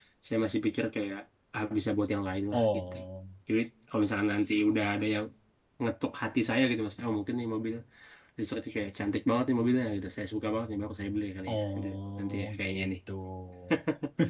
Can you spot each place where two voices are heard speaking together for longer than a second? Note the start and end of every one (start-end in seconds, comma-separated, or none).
11.5-12.9